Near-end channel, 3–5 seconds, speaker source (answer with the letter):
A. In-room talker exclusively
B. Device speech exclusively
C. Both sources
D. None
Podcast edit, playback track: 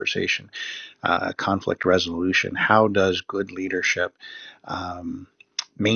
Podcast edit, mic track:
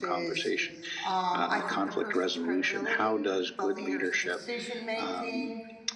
C